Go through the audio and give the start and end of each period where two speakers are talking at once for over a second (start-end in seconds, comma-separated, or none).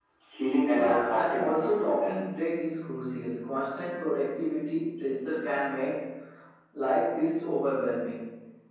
0.8-2.2